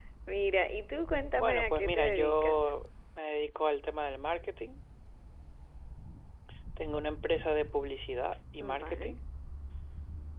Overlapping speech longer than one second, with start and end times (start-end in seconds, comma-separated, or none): 1.3-2.7